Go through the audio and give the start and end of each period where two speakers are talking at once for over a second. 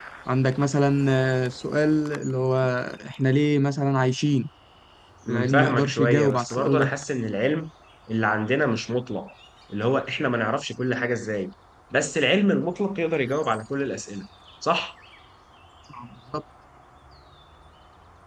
5.3-6.9

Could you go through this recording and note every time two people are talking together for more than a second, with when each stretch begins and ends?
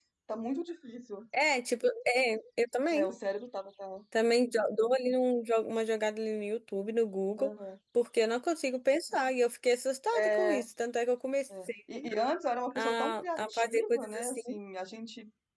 12.8-14.4

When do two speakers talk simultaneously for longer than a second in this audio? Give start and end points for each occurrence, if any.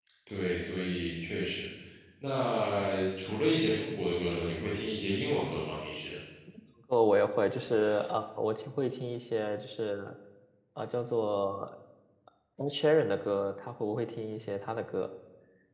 none

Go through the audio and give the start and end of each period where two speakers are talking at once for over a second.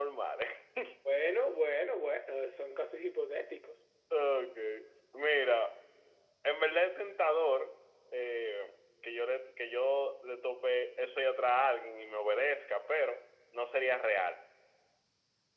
none

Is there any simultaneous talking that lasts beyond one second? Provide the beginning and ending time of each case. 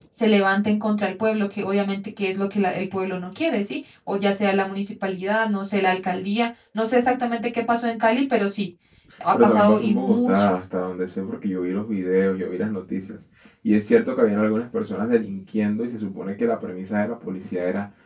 9.3-10.6

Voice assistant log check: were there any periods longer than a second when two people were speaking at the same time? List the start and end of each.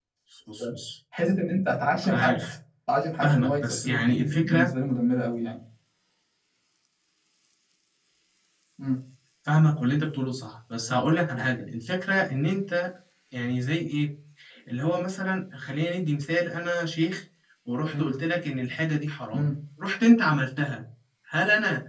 3.2-4.7

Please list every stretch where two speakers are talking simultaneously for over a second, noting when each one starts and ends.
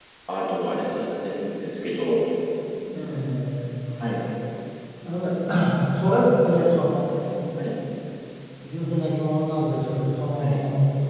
none

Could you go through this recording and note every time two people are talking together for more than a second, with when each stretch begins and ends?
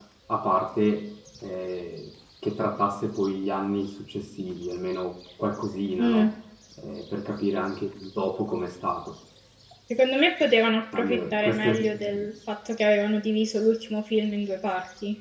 10.9-12.2

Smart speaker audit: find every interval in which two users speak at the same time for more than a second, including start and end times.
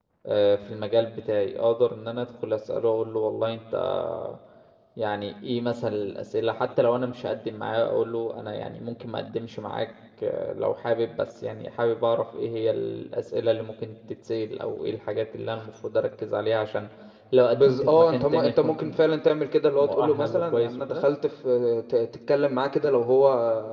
17.5-19.0, 19.8-21.0

